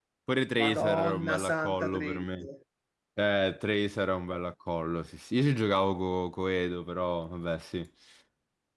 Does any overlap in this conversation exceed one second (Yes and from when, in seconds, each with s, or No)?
Yes, from 0.6 s